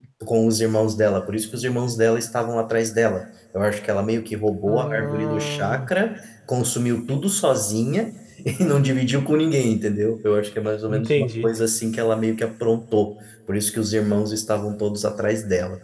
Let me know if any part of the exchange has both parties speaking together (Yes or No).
Yes